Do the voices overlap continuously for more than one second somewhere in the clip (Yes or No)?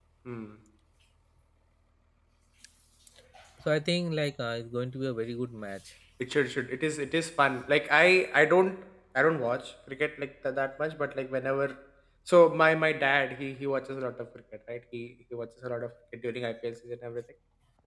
No